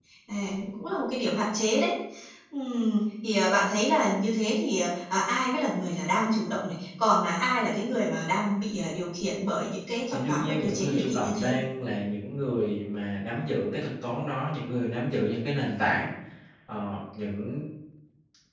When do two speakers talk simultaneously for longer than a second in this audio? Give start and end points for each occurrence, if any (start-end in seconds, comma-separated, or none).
10.1-11.6